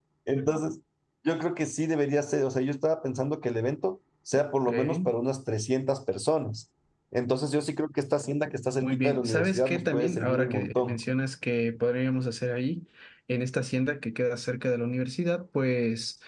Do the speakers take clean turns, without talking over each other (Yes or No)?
No